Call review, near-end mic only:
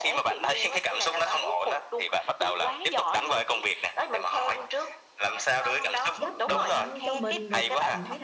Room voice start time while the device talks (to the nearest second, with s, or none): 6 s